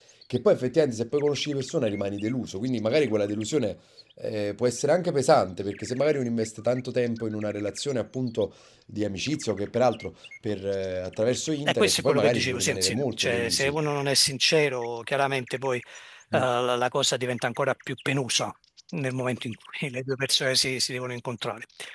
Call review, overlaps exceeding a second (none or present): present